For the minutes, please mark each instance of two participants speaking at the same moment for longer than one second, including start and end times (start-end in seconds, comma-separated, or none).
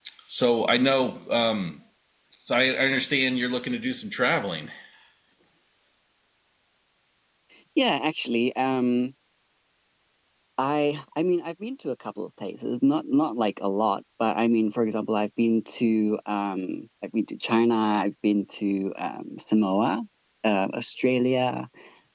none